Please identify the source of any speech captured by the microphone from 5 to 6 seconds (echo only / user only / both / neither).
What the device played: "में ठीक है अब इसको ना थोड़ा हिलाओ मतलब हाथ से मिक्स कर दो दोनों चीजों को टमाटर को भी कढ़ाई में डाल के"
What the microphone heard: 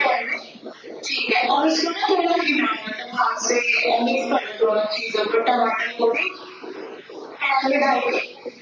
echo only